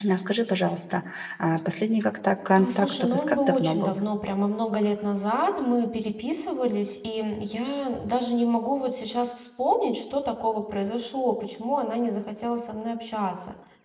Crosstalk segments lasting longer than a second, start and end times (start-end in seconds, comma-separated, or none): 2.6-4.0